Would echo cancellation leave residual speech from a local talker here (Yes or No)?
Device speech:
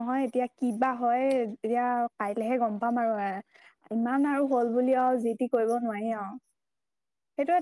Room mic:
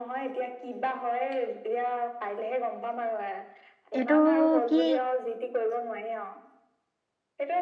Yes